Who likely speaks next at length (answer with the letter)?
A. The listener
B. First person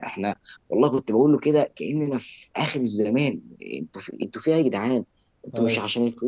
B